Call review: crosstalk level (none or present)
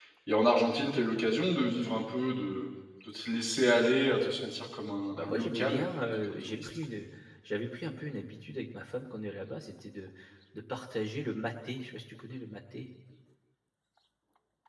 present